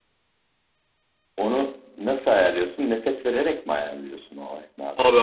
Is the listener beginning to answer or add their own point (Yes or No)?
Yes